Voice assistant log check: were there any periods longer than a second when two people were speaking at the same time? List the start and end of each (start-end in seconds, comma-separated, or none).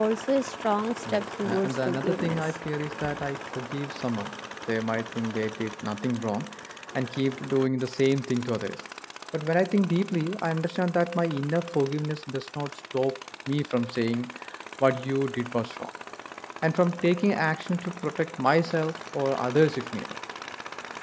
1.1-2.5